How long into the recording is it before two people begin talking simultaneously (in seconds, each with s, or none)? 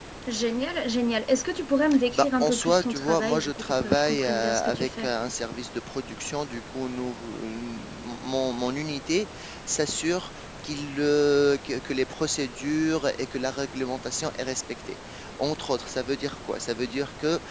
2.1 s